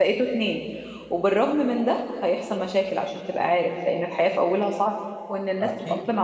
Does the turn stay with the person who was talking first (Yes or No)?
Yes